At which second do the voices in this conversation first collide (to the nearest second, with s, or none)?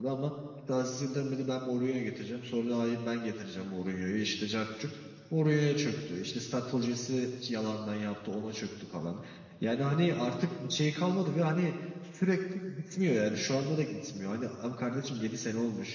none